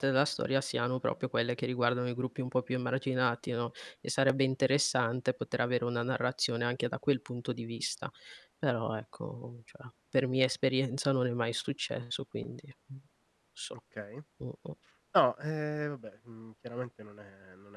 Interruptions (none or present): none